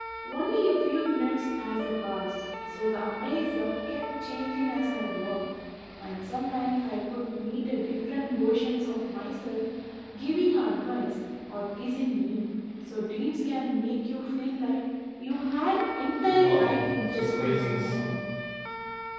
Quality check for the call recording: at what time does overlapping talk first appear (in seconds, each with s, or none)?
16.2 s